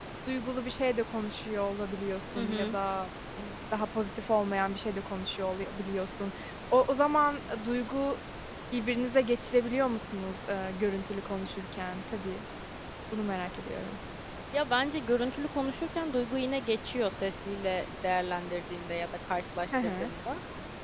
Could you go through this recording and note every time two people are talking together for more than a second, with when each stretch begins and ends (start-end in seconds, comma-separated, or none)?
none